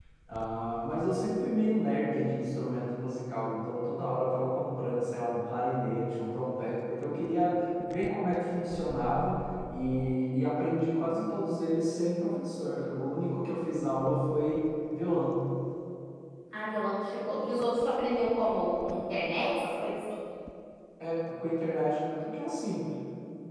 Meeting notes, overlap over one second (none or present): none